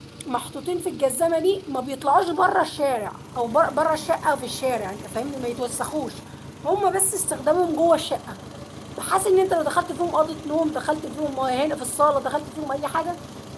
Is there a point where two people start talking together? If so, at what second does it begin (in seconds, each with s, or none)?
none